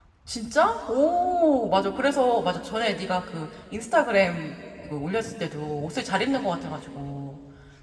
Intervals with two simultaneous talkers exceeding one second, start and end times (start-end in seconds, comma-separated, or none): none